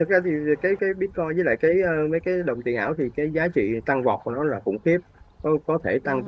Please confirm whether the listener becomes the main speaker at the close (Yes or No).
No